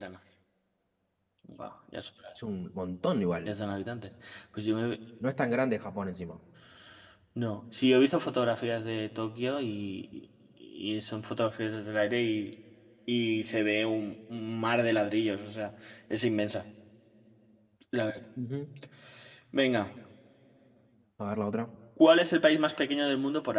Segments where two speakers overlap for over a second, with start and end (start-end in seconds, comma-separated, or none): none